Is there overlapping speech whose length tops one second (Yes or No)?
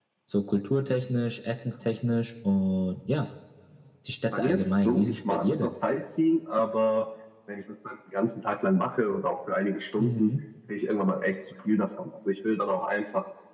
Yes